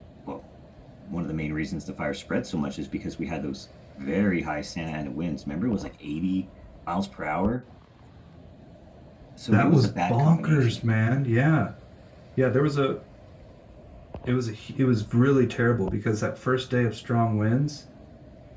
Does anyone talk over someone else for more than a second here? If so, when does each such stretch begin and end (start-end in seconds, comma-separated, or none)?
9.5-10.9